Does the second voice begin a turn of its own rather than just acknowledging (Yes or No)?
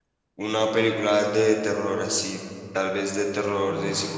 No